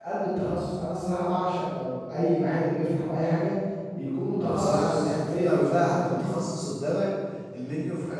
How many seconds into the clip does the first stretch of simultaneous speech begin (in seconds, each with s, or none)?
4.4 s